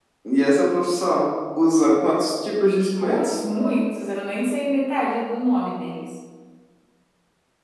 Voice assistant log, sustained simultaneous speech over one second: none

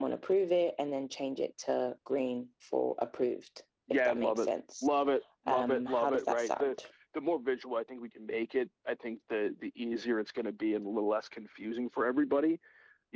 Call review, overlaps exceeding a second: present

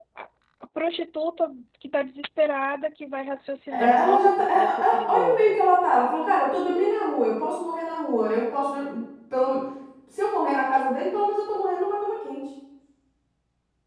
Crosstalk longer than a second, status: present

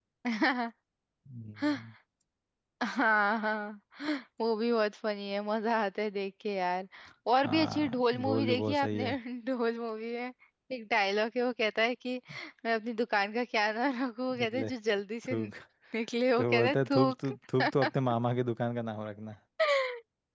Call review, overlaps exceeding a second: present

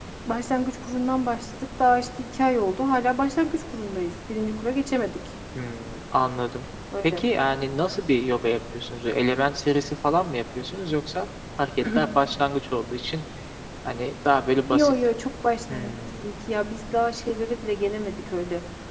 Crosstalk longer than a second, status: none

